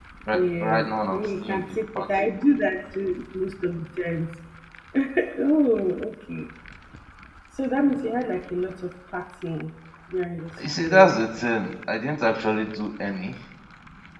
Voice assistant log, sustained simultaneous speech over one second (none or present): present